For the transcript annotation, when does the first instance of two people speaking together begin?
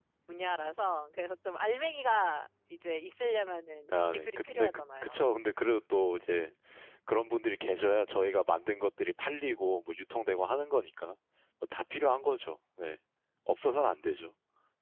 3.9 s

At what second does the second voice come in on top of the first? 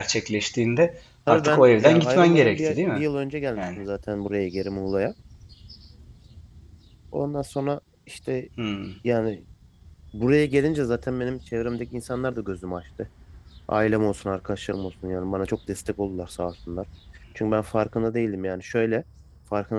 1.3 s

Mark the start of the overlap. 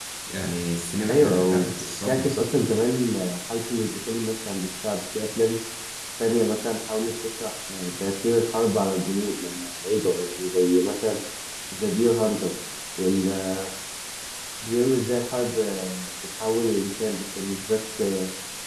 1.1 s

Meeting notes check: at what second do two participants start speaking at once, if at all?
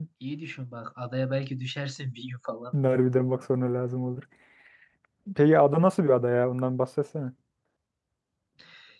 none

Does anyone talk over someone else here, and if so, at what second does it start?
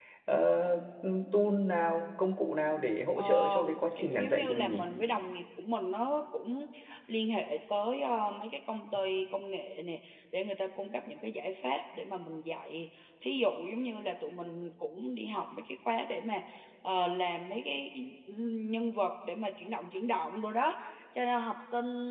3.2 s

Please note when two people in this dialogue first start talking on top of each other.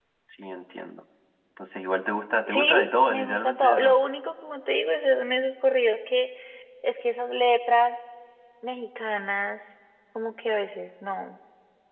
2.5 s

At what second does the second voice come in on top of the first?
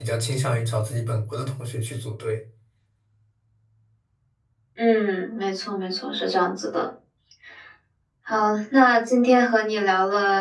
none

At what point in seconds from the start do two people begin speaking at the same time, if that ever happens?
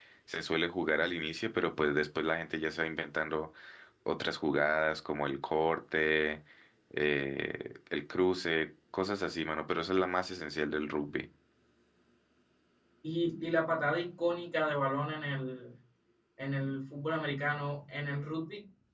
none

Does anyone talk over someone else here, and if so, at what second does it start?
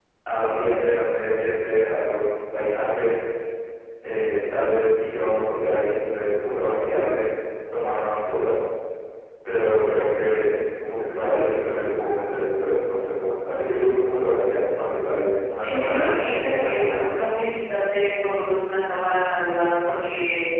15.6 s

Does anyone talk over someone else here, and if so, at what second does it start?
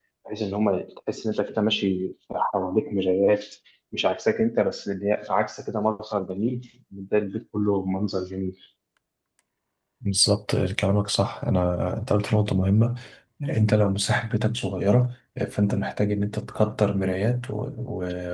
none

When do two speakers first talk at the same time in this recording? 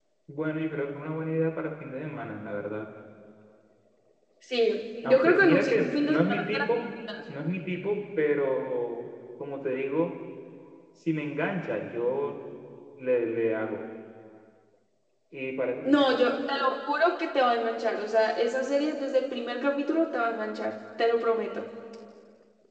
5.0 s

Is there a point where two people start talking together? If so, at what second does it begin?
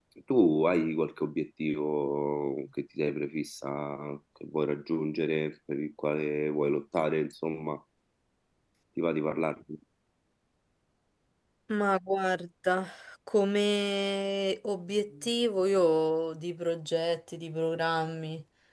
none

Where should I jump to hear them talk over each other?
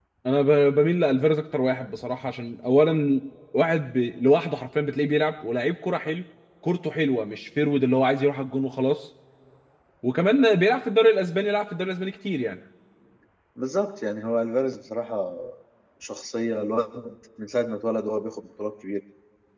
none

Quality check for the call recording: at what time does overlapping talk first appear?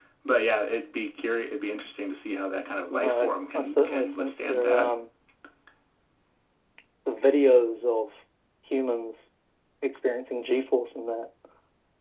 2.9 s

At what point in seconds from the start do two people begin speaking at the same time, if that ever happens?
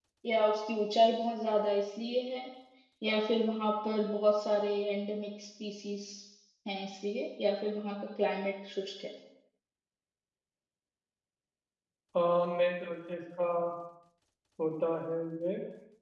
none

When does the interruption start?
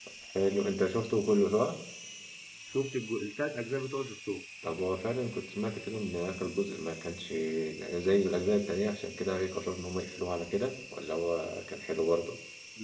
none

